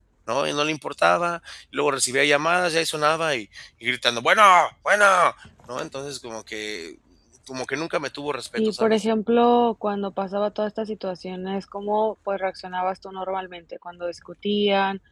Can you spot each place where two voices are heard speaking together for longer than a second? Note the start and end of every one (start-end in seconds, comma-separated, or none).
none